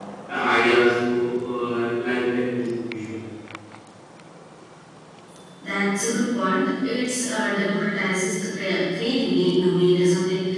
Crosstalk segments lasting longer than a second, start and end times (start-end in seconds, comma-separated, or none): none